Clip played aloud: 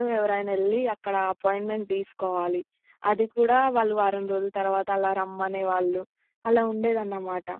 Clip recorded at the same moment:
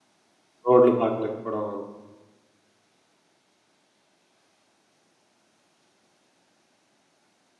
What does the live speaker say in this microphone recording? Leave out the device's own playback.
రోడ్లు బాగా లేకపోడం. అవును.

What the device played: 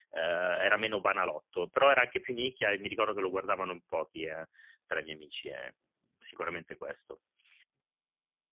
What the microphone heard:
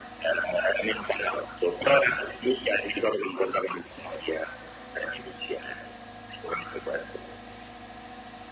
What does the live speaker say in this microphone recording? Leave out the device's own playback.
none

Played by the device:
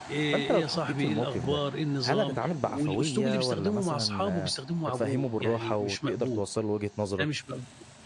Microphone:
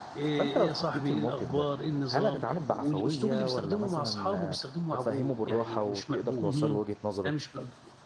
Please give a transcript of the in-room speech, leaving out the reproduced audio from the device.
اهم.

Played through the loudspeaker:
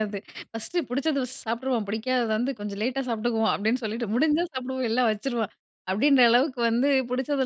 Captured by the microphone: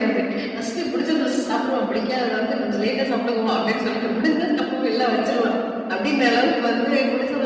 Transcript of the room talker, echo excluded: none

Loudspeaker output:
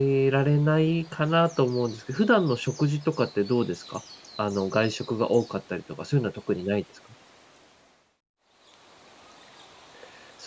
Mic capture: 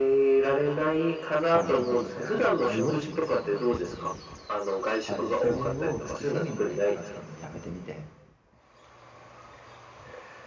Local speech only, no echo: はい、健康状態をはいる、アイウォッチみたいなもんなんですけど、はい、で、それを月¥1000ぐらい払ったのもやめてみて。

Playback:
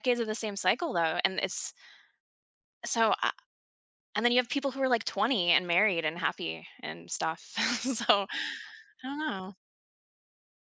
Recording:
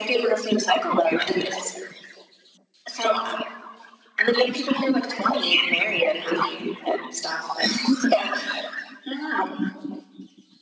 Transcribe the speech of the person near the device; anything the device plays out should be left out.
none

